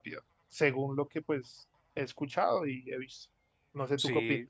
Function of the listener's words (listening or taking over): taking over